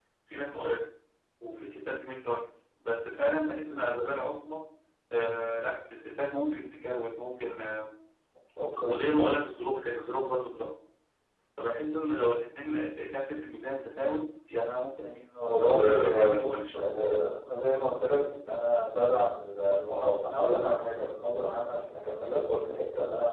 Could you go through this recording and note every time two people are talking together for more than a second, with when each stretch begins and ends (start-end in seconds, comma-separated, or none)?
15.4-16.8